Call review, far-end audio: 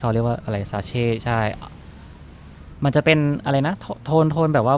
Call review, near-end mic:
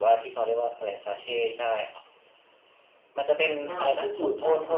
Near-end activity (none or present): present